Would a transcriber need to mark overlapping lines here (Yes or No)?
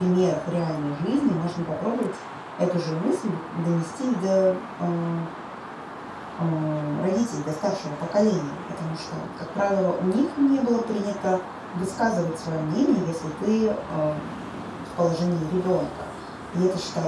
No